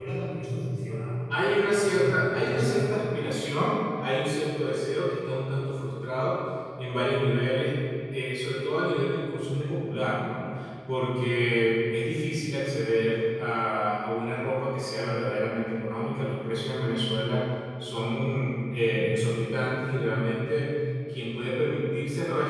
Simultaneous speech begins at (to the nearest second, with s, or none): 2 s